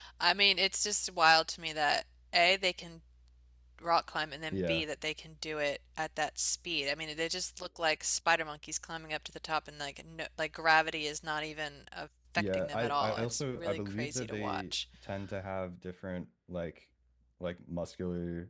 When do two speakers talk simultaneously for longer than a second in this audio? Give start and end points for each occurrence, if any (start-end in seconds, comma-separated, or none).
12.4-14.7